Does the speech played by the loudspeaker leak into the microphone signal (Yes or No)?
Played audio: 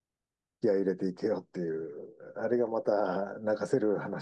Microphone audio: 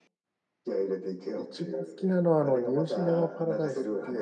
Yes